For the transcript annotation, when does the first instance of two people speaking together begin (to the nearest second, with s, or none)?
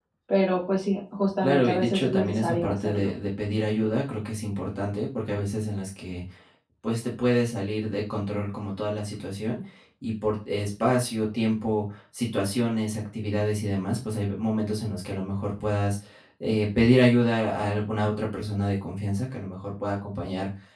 1 s